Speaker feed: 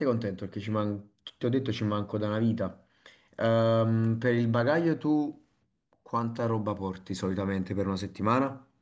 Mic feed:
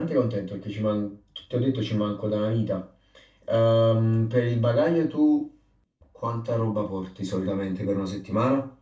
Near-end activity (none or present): none